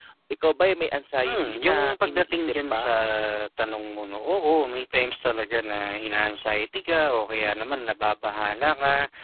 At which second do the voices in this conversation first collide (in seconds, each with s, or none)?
1.2 s